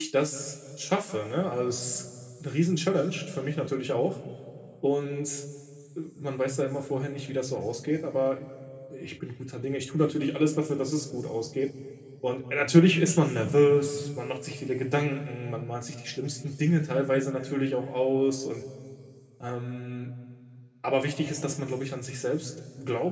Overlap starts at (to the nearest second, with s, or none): none